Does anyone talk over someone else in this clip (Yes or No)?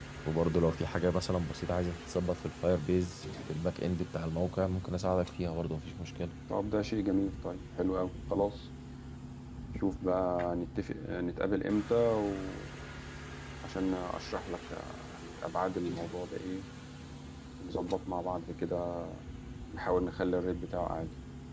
No